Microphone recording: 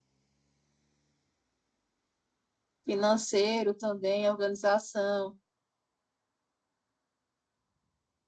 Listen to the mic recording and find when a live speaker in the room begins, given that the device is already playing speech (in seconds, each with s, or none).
2.9 s